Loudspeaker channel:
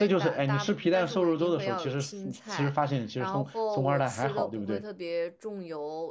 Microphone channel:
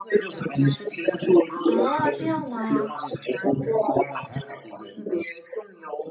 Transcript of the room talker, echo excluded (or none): 哦，这样吗？